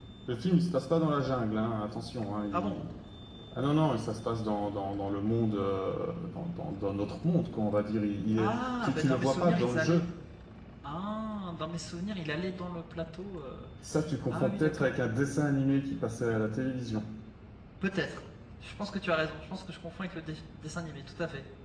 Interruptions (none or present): present